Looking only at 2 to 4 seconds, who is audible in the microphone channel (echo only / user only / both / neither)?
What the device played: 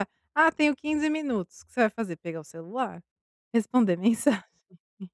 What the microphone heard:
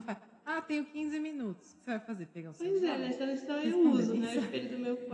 both